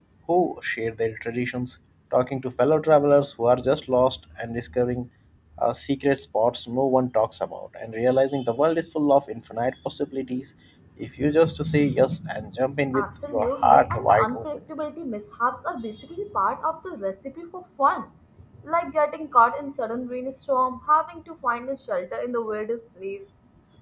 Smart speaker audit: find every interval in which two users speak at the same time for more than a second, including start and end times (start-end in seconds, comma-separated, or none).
12.9-14.4